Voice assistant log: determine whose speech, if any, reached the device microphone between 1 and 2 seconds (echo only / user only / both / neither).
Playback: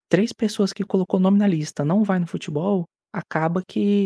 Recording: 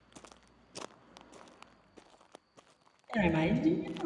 neither